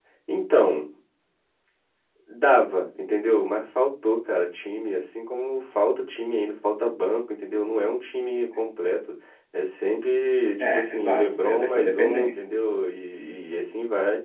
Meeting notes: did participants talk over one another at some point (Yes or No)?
Yes